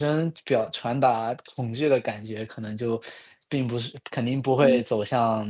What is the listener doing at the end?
listening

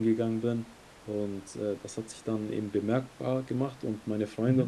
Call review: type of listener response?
listening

